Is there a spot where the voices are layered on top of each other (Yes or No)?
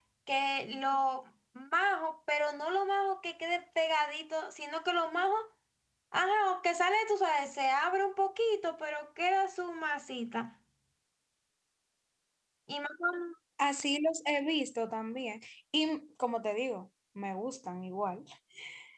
No